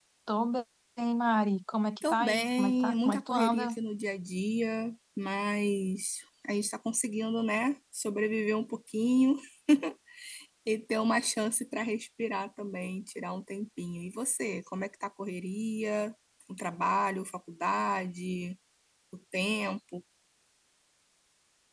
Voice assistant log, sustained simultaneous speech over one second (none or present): present